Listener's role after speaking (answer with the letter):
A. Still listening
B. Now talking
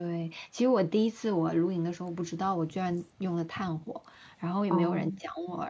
A